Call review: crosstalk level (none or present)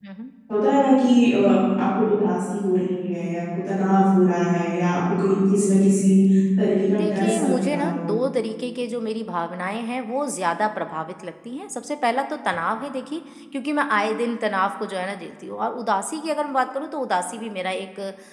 present